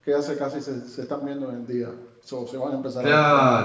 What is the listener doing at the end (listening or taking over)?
taking over